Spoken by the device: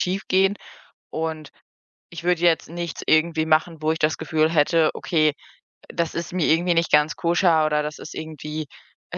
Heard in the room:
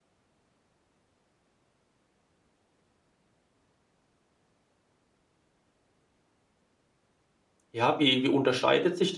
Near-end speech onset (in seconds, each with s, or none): 7.7 s